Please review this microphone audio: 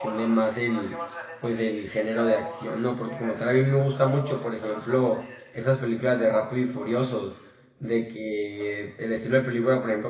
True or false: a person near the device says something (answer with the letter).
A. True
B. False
A